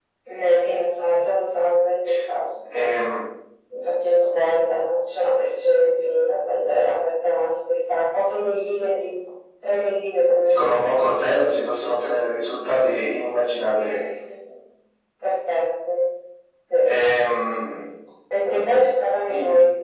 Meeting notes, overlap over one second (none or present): none